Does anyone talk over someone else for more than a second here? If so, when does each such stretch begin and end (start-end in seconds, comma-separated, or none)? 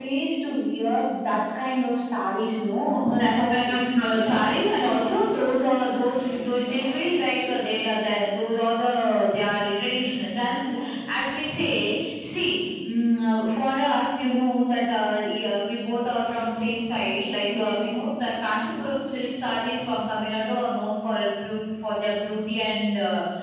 3.2-4.5